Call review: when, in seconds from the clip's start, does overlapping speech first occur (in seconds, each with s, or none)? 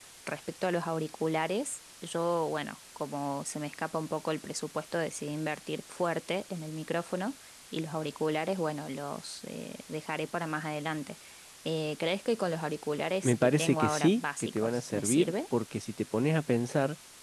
13.2 s